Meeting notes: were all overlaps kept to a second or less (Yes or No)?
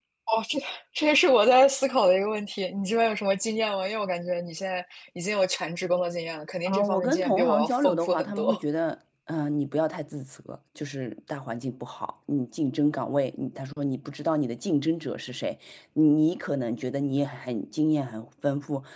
No